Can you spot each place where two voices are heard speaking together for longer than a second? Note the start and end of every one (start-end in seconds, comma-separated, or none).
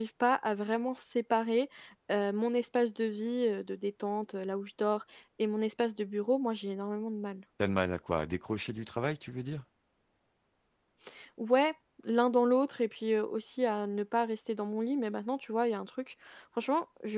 none